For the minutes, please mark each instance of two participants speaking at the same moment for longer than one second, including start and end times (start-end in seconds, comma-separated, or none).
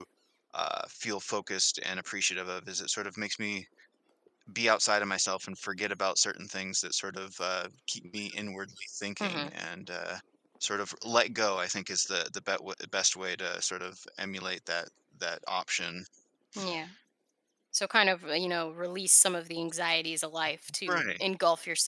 none